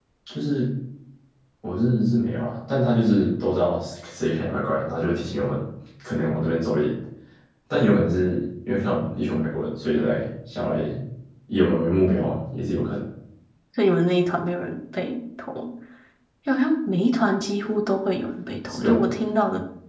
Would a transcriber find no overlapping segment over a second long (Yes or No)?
Yes